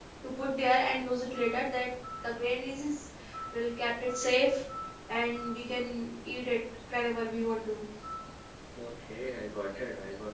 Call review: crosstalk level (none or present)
none